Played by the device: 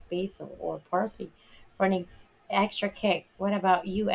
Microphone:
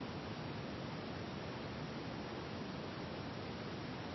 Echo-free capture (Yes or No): Yes